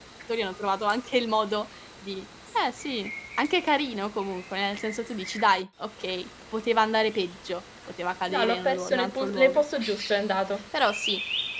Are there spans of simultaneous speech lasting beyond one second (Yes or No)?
Yes